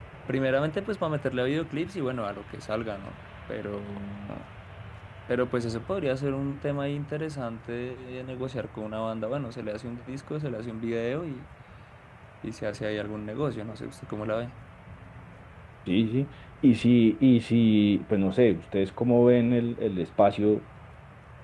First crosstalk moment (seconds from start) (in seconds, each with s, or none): none